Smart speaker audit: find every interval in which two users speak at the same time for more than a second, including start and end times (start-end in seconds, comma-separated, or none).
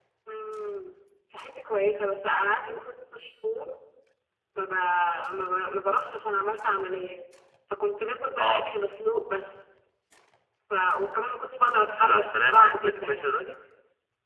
11.8-13.3